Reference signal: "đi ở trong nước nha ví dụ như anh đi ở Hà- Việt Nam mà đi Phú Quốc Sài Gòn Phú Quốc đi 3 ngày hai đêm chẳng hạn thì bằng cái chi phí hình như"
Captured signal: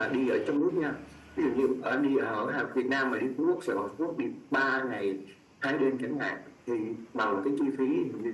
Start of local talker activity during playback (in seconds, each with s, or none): none